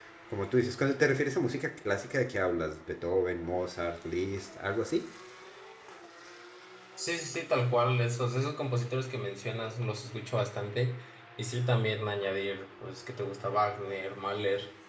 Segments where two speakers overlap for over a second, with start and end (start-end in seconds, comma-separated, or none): none